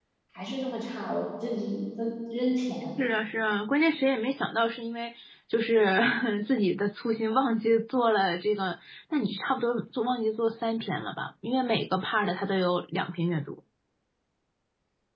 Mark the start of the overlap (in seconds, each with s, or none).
none